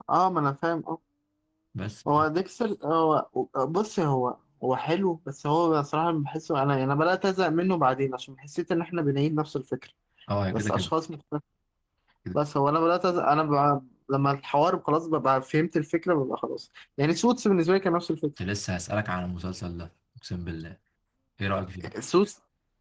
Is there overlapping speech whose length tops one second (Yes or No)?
No